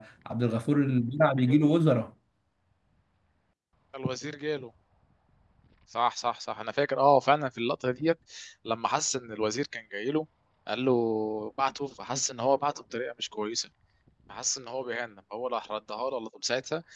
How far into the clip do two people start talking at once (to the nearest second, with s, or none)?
none